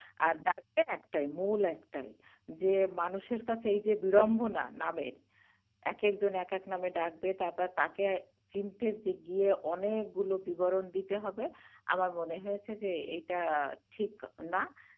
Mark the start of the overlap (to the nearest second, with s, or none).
none